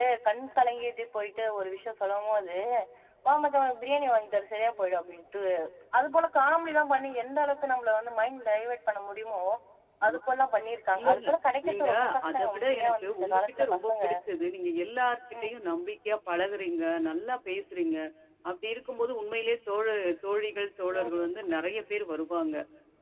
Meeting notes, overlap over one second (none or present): present